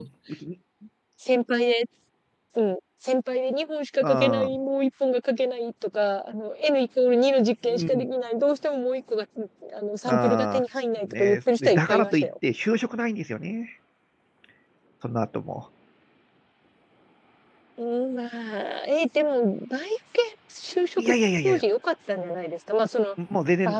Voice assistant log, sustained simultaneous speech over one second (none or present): present